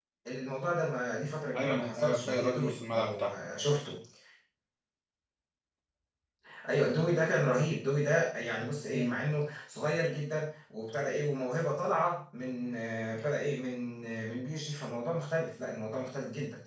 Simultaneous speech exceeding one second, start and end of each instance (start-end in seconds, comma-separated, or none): 1.5-3.3